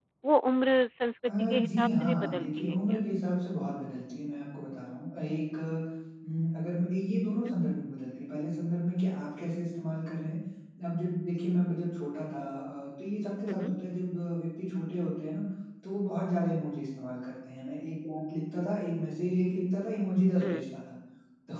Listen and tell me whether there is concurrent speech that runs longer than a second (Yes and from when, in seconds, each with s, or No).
Yes, from 1.3 s